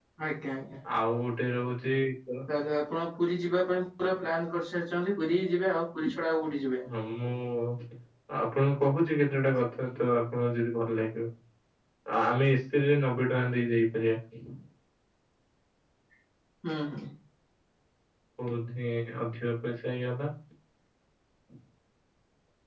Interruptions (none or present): none